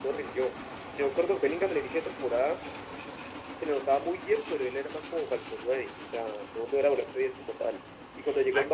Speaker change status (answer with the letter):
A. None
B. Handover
A